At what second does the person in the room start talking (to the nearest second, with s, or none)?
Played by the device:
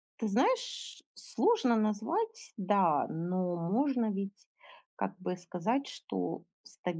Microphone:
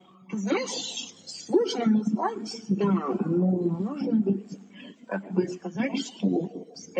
none